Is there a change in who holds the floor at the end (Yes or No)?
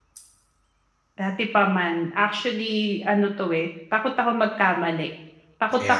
No